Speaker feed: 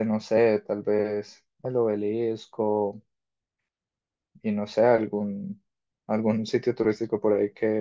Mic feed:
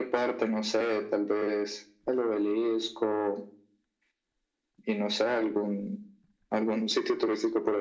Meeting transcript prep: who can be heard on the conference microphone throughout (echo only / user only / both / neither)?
echo only